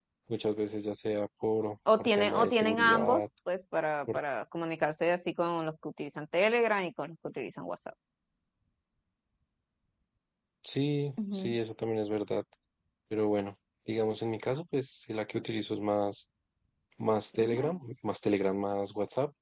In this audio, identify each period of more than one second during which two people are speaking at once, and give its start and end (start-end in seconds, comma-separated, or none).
2.0-3.3